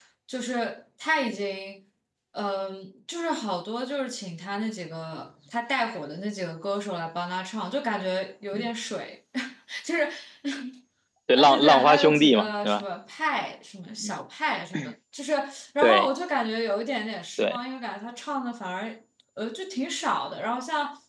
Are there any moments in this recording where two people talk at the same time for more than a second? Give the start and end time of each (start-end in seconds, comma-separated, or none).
11.4-12.8